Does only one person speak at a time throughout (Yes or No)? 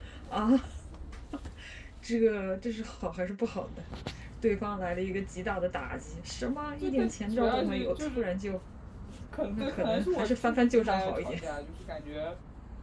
No